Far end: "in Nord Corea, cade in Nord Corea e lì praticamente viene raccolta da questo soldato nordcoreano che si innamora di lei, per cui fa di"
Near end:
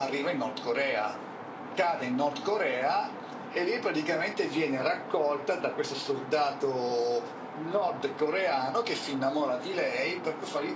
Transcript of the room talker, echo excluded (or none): none